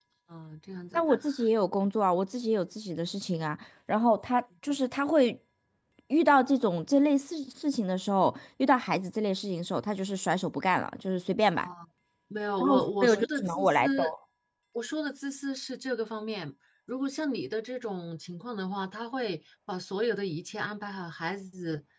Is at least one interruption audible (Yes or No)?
Yes